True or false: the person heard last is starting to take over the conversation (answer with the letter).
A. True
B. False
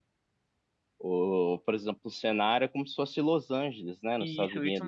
A